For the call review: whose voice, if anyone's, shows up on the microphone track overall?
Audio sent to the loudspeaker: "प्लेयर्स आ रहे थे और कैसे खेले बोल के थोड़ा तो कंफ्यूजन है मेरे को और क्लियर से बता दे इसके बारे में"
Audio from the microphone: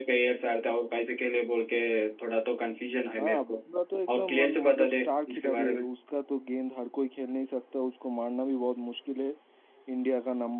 both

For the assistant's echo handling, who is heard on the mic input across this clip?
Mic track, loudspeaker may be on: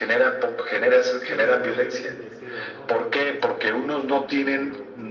both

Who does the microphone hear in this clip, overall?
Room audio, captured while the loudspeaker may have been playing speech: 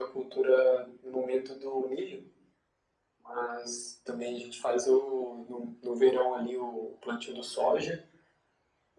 echo only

